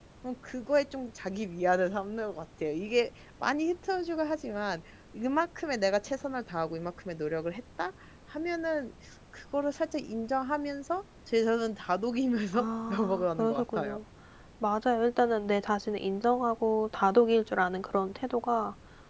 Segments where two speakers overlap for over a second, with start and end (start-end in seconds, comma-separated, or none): 12.5-14.0